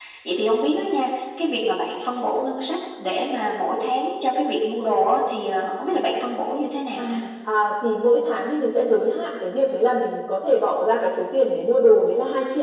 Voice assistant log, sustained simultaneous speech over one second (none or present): none